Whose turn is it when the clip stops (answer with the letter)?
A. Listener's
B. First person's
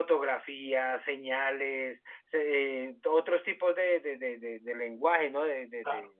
A